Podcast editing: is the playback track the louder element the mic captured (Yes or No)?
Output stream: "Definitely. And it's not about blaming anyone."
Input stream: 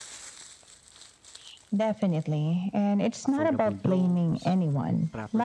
Yes